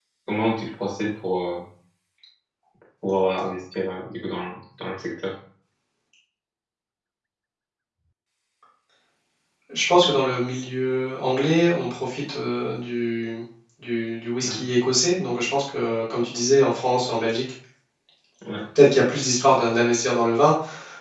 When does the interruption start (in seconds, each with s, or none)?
none